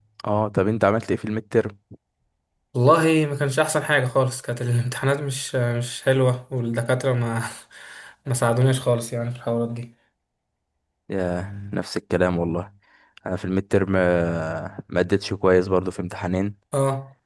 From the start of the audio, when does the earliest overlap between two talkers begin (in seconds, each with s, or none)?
none